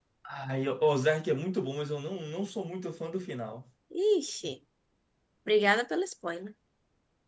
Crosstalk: none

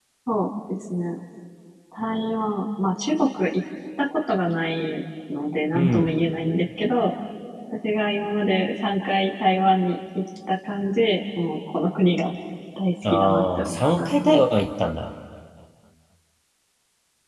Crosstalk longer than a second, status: present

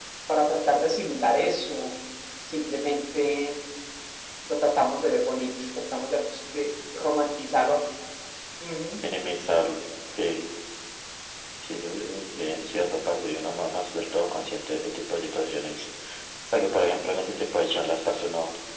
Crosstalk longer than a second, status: none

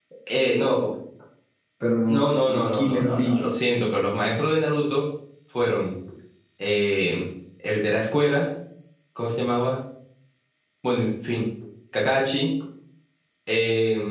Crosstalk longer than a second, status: present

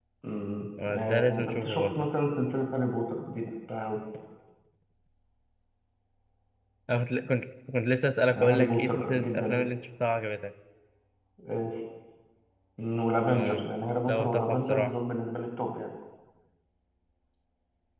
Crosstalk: present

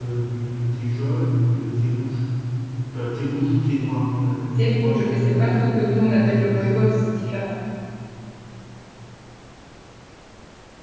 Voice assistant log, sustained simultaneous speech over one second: present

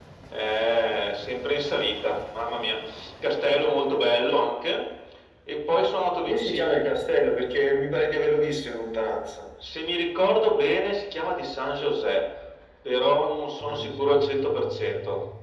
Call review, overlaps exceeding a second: none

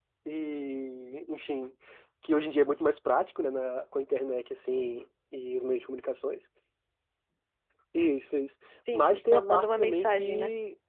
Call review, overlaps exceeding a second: present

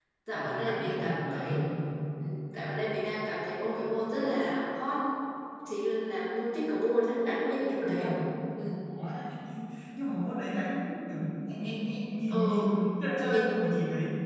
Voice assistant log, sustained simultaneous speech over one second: present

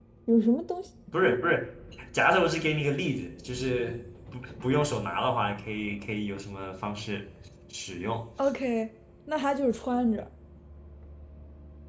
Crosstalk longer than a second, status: none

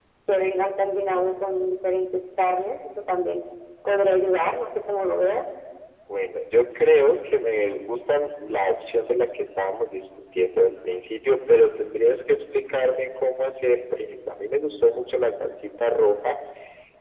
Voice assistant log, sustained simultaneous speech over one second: none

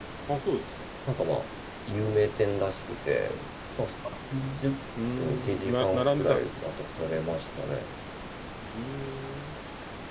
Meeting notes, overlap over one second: present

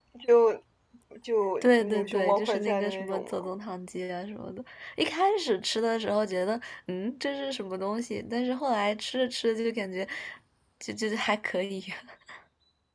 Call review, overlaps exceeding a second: present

